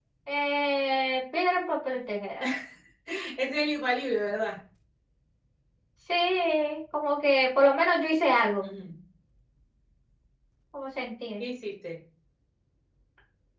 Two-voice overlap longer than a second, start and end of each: none

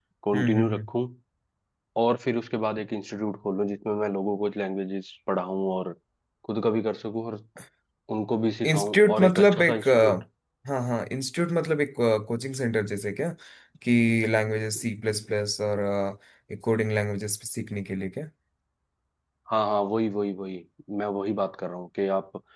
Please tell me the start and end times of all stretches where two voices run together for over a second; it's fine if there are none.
8.6-10.1

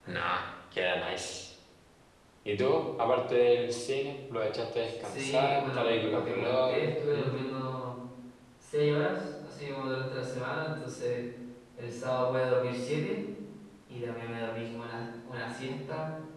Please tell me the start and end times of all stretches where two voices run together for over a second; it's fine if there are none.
5.0-7.2

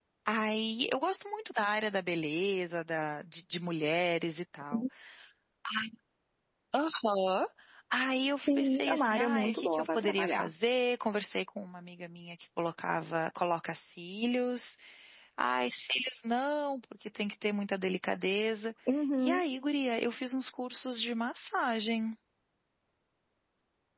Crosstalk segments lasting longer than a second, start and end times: 8.4-10.5

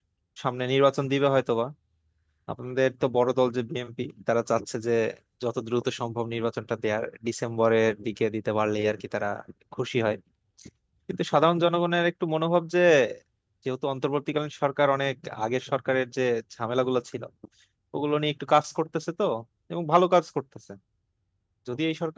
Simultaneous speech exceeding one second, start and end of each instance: none

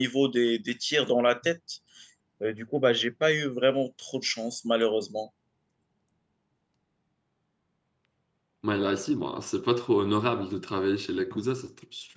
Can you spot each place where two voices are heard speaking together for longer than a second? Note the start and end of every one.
none

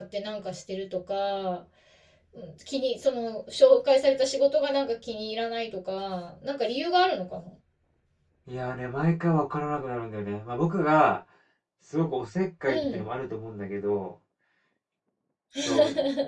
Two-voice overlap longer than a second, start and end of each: none

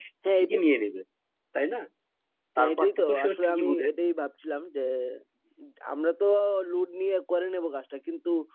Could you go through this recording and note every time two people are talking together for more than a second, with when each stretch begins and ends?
2.6-3.9

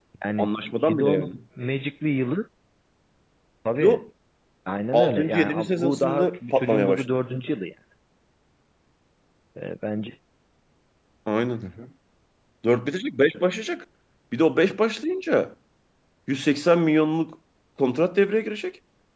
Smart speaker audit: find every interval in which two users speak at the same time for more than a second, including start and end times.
4.9-7.1

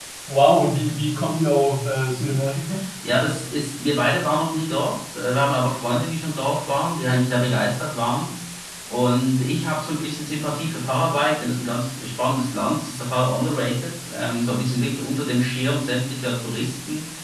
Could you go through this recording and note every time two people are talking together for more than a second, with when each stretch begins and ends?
none

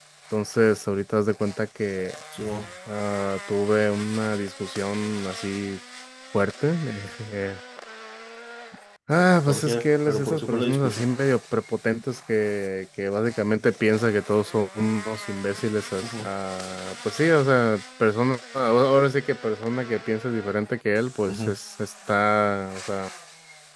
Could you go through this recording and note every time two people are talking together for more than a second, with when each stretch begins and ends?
9.5-11.1

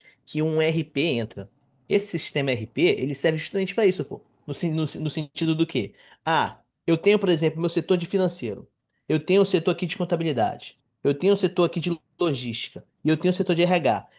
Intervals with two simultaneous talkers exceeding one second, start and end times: none

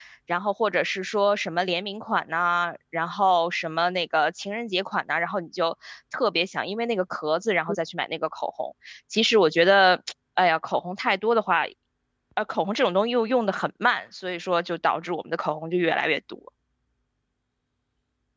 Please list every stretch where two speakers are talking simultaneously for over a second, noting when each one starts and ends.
none

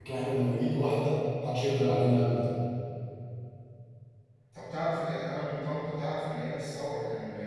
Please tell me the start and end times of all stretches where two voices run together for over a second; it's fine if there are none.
none

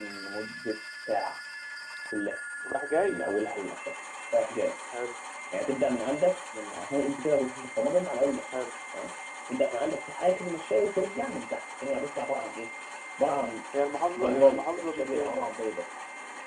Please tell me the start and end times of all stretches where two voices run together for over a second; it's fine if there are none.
14.2-15.5

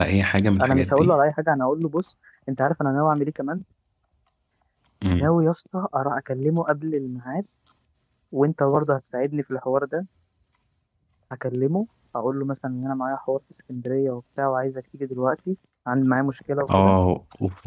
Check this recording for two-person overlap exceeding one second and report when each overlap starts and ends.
none

